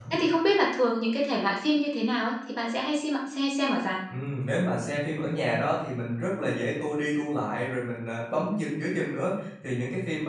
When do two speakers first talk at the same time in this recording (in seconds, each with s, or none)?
none